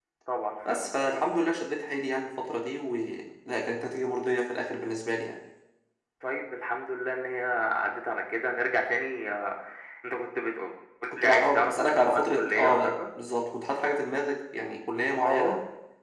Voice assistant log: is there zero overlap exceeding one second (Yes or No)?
No